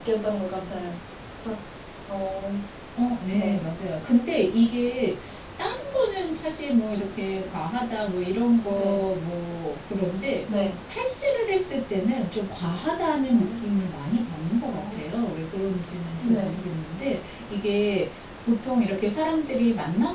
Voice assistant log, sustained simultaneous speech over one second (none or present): none